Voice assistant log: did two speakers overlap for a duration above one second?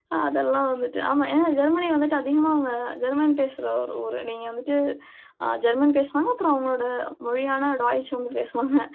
No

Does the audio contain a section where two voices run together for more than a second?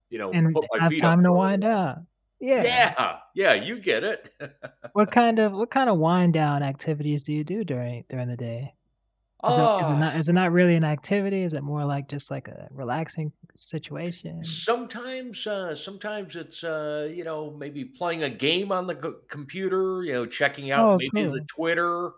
Yes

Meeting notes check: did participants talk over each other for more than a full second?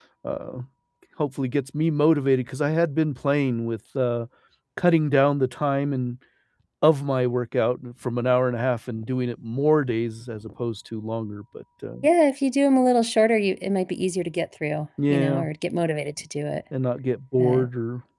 No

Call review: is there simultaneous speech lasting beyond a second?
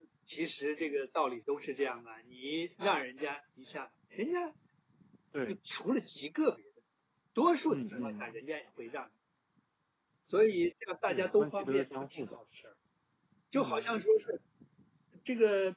Yes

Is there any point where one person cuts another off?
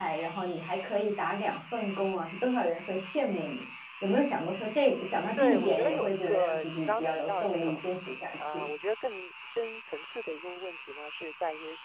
Yes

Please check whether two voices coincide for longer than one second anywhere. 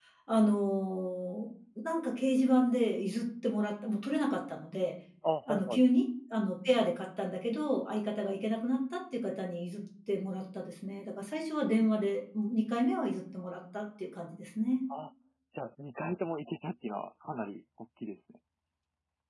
No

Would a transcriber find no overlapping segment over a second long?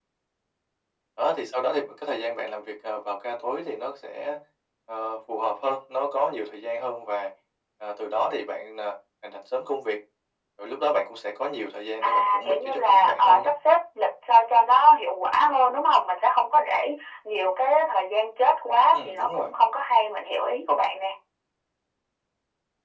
No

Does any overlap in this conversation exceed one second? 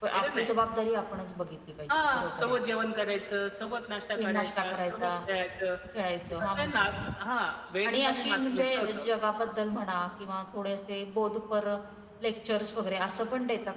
Yes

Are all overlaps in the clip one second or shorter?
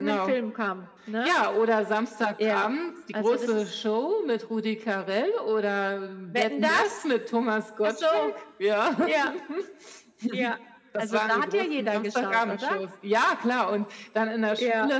No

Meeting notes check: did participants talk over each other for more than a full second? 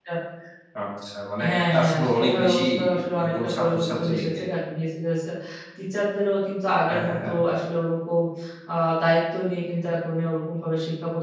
Yes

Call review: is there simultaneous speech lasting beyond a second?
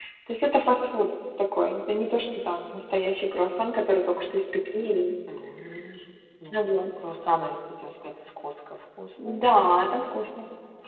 No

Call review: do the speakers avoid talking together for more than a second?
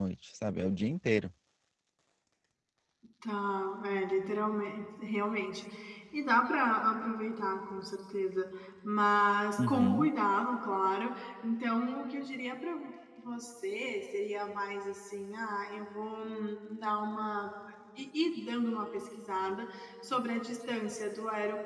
Yes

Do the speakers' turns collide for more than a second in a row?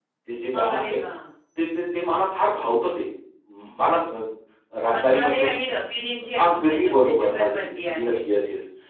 Yes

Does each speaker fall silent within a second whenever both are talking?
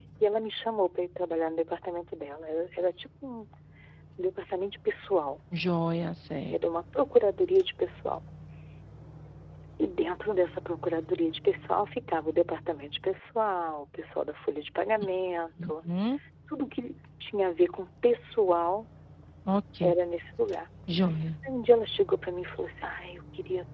Yes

